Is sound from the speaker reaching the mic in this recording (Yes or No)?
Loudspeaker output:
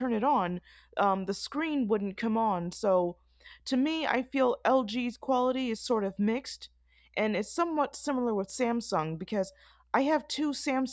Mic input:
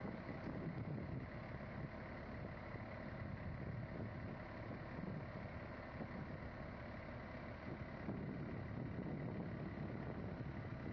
No